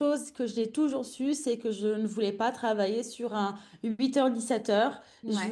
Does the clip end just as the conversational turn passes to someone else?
No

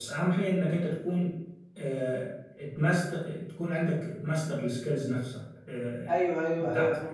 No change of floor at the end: No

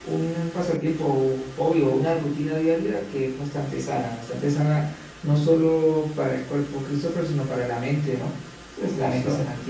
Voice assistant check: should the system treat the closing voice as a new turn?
No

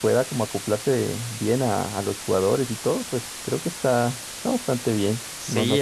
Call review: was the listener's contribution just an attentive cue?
No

